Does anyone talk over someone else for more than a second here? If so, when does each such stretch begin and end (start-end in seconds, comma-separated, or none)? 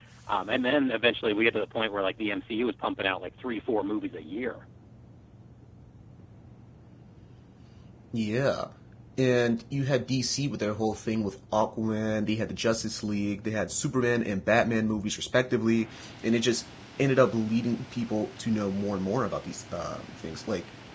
none